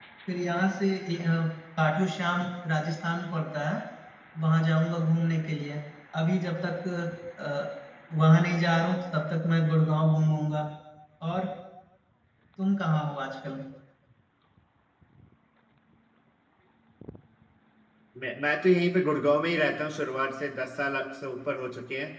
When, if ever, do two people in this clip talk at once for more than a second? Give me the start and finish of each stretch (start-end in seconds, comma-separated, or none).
none